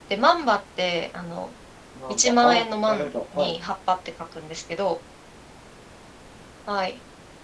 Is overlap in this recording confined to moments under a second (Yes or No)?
No